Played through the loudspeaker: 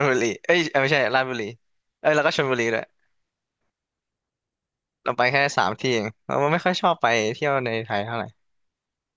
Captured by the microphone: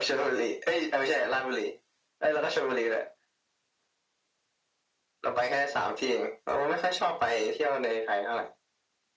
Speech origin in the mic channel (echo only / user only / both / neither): echo only